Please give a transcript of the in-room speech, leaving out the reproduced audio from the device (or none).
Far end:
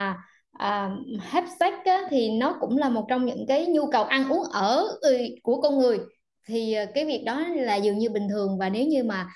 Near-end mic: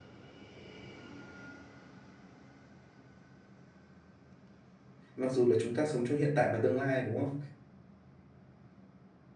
Mặc dù là chúng ta sống cho hiện tại và tương lai đúng không?